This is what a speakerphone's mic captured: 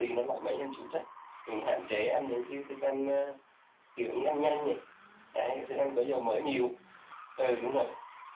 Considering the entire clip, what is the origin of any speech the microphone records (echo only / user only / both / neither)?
echo only